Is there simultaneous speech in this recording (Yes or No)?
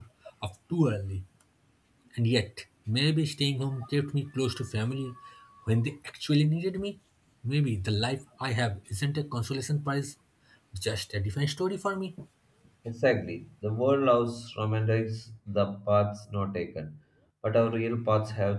No